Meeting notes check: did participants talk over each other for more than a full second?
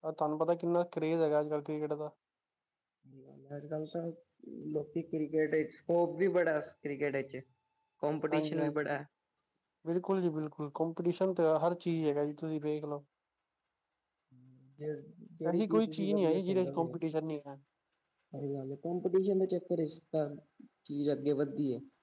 Yes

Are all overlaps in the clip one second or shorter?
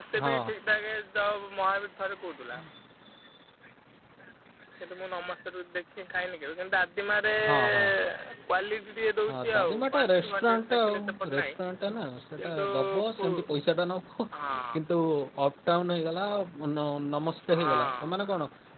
No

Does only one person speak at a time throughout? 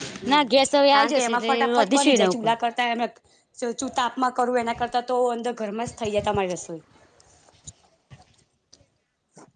No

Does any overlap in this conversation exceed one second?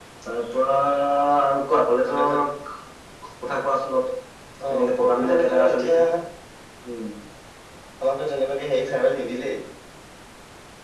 Yes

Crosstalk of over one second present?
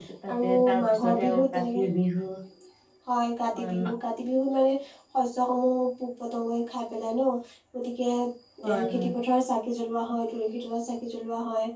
Yes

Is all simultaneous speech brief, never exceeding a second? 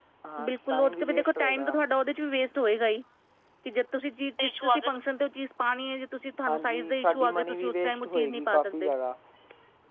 No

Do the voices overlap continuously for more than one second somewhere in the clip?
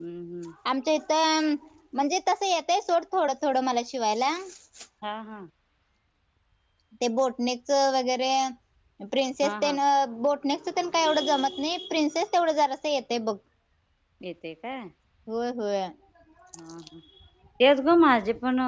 No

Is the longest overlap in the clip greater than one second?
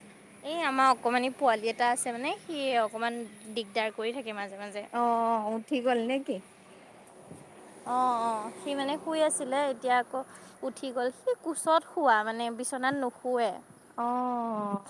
No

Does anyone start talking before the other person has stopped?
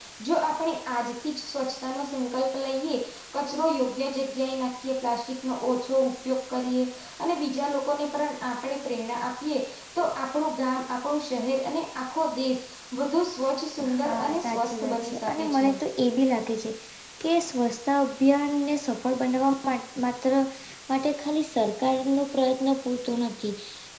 Yes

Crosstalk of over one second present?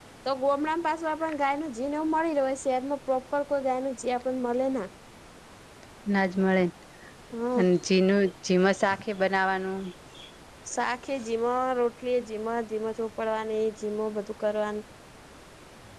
No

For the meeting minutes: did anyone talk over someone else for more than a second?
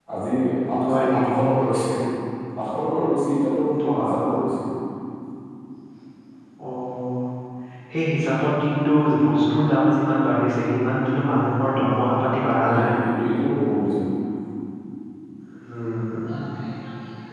No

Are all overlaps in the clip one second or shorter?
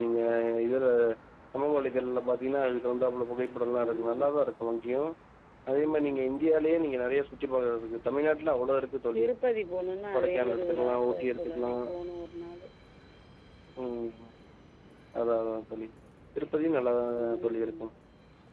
No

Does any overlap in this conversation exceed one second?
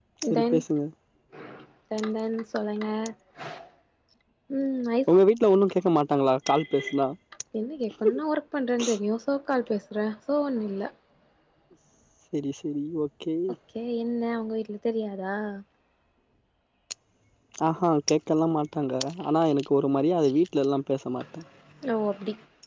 No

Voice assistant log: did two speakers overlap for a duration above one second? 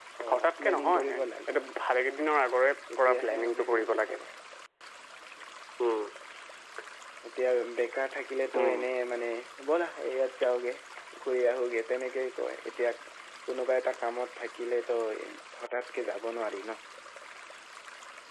Yes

